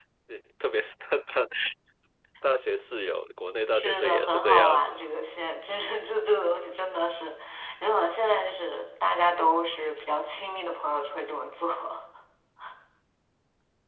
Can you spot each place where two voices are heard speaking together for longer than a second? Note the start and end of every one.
3.7-5.0

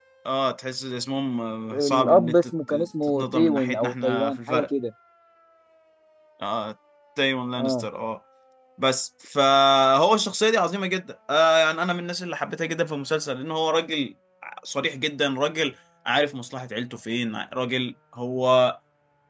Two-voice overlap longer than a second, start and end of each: 1.8-4.7

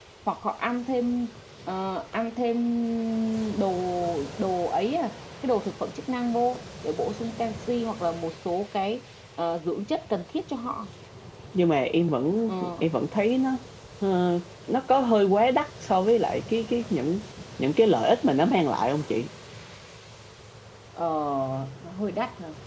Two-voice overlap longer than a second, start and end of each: none

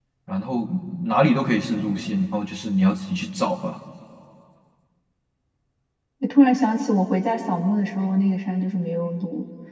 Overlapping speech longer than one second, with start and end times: none

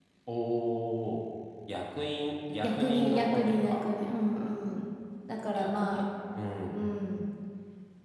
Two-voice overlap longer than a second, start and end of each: 2.6-3.9

